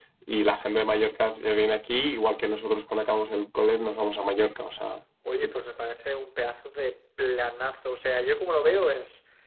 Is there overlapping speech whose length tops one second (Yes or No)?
No